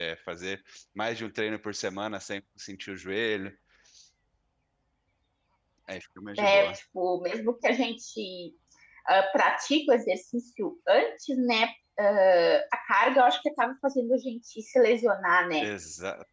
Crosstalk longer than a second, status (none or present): none